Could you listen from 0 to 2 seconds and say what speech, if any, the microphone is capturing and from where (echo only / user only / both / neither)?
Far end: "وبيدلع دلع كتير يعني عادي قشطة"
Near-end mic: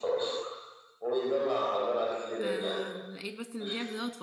echo only